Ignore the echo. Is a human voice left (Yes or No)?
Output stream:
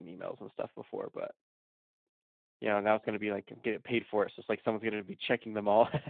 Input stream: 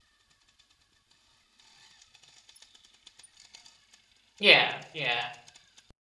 Yes